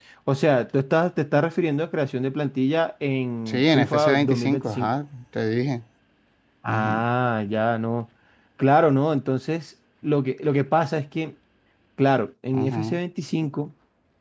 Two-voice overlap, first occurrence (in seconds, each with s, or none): 3.5 s